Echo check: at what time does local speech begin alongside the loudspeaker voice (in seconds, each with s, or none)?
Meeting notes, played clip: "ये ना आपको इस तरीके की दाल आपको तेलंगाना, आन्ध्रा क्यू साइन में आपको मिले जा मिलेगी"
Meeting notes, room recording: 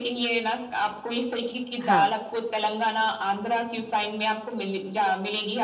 1.8 s